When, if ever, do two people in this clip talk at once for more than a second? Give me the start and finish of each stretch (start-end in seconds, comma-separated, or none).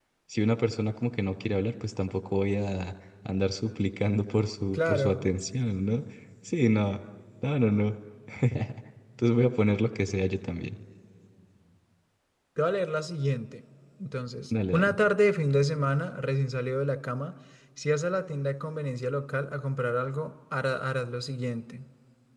none